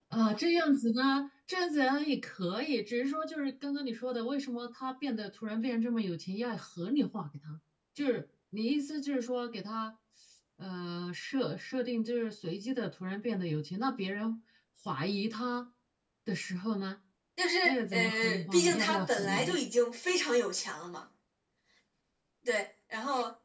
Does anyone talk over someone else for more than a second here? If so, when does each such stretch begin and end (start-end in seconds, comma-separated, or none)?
17.6-19.6